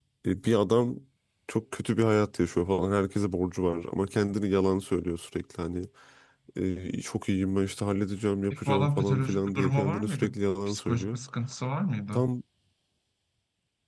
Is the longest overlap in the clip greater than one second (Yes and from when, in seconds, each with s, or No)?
Yes, from 8.5 s